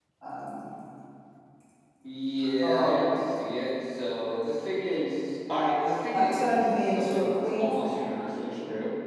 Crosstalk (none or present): present